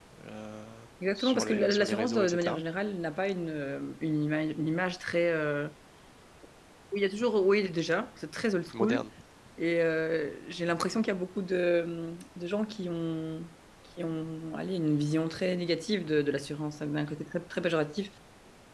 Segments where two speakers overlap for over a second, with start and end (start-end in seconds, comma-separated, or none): 1.1-2.6